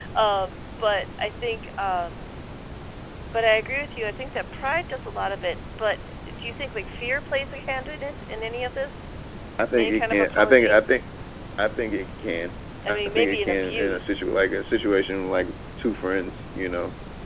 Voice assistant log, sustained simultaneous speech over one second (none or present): present